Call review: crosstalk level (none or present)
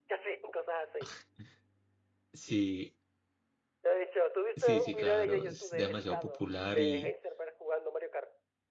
present